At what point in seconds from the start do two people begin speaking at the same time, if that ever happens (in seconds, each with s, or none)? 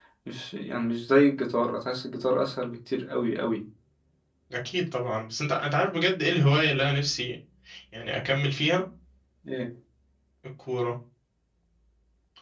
none